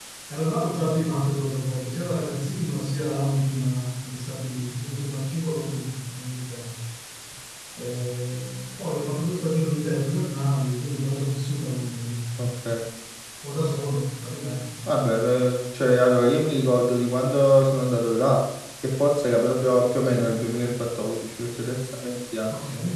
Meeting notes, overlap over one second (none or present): none